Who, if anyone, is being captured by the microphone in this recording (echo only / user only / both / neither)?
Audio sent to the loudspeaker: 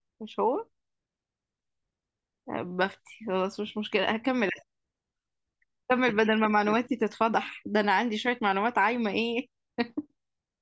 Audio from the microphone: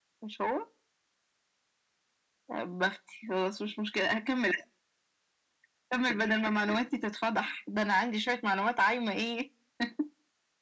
echo only